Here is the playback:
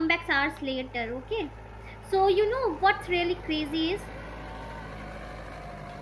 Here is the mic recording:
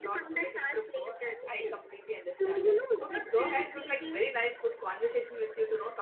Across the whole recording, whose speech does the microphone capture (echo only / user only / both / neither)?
both